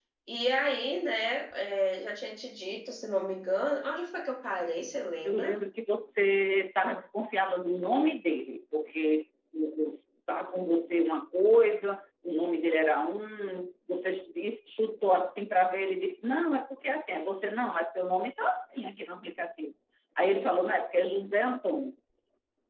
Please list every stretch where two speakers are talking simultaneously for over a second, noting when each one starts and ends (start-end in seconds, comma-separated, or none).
none